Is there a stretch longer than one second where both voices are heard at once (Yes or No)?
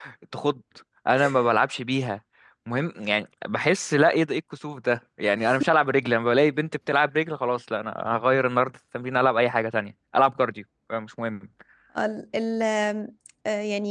No